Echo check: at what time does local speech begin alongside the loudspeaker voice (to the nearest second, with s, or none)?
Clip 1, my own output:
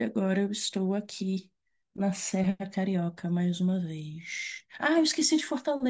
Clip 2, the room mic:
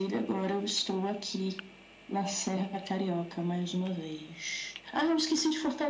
none